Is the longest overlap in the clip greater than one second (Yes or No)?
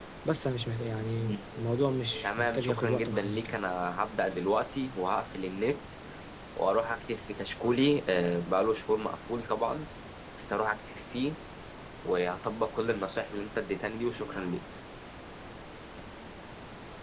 Yes